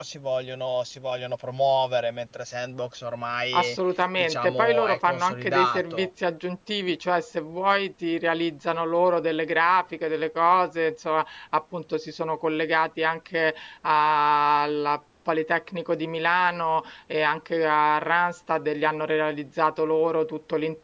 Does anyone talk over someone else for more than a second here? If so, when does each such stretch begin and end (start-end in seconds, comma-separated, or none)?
4.2-6.1